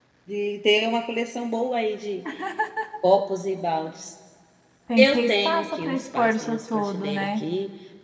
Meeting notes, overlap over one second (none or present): present